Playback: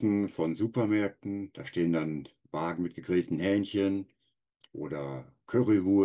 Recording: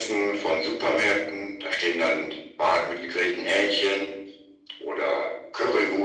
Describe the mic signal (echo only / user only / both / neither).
echo only